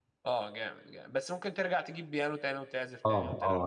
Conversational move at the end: taking over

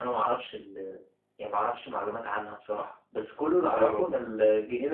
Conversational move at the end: listening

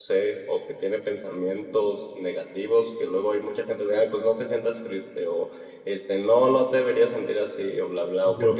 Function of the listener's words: listening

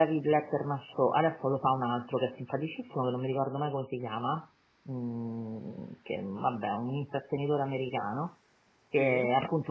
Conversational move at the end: listening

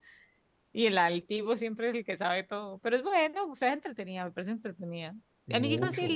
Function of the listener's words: listening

